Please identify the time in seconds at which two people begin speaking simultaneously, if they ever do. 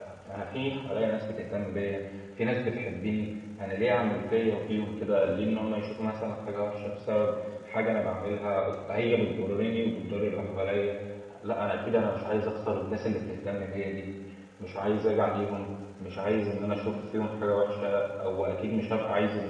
none

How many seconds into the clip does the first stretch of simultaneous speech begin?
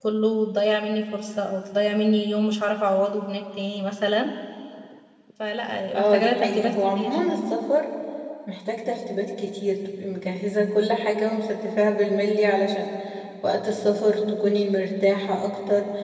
6 s

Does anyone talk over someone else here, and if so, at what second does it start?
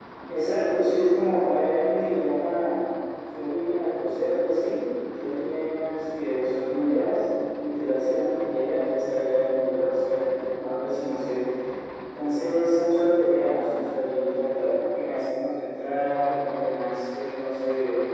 none

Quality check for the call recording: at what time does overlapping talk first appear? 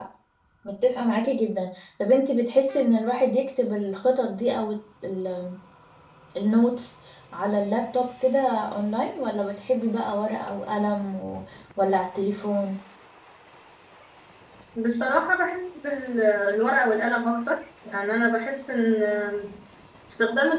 none

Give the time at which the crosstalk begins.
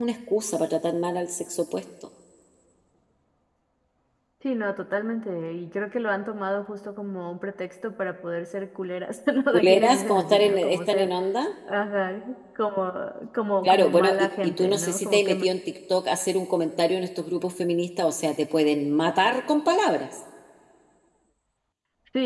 10 s

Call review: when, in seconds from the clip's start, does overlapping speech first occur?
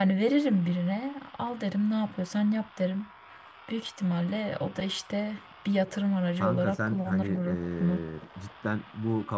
6 s

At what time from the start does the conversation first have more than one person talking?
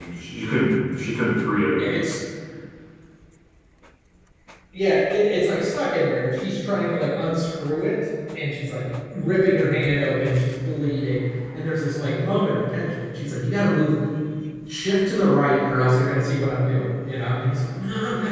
none

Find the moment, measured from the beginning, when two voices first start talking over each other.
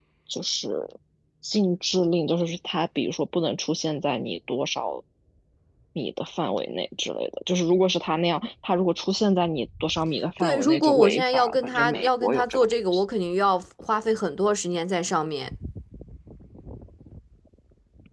10 s

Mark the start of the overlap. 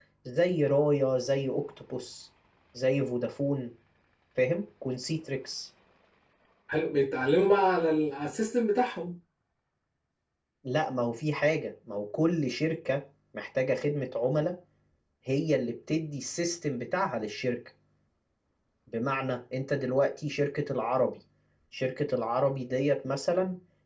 none

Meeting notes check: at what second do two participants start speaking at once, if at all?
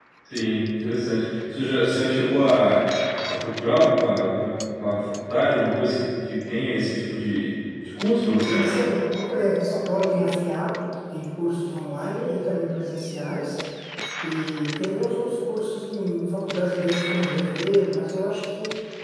none

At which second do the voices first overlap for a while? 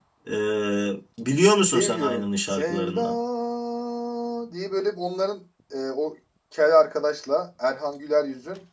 2 s

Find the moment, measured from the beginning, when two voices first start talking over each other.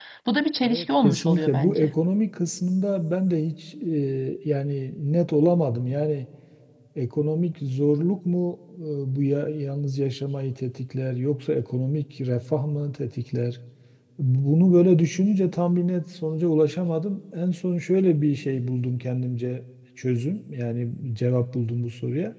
1 s

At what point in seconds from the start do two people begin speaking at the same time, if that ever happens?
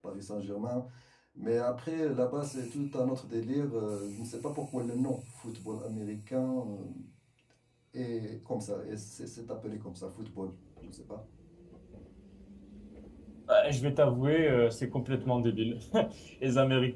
none

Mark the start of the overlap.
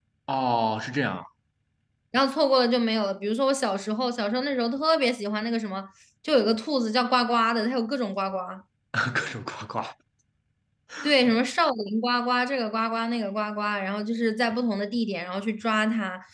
none

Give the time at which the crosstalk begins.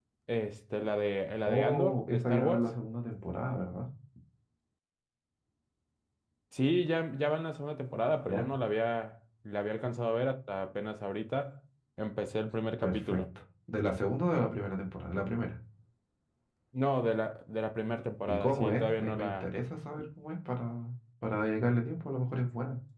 1 s

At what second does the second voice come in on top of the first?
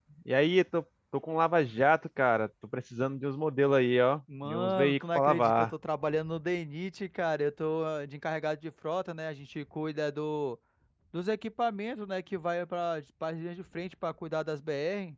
4 s

